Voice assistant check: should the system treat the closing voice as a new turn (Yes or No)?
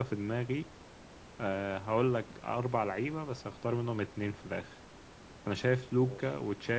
No